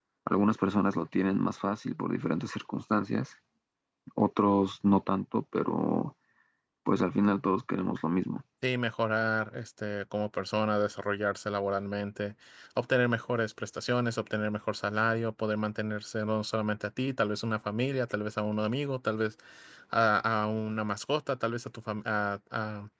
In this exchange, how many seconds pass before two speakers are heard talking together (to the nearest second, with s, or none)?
none